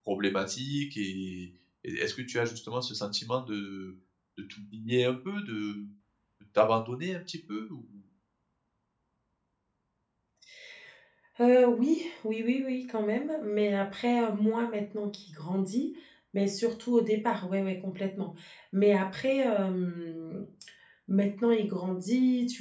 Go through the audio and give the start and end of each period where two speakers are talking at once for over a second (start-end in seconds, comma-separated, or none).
none